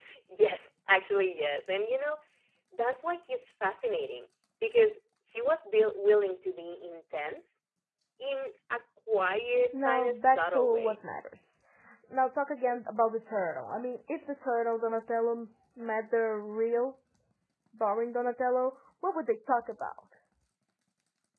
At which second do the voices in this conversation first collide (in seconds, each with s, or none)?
9.7 s